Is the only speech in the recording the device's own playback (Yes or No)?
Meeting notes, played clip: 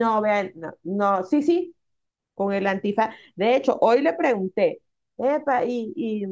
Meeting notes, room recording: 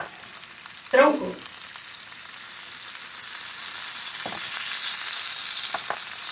No